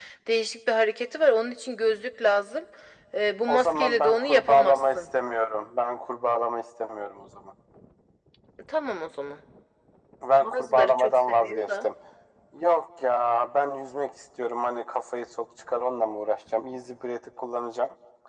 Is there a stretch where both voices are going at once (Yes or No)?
Yes